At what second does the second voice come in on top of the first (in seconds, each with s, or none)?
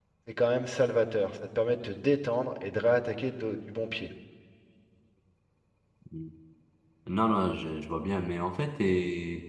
none